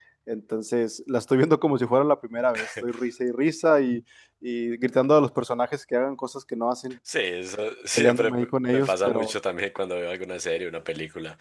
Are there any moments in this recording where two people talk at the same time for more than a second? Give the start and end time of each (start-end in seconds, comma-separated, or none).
8.0-9.3